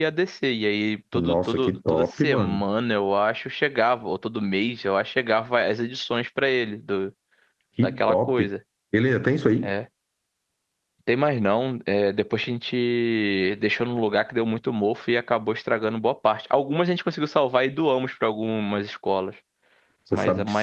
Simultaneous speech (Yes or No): Yes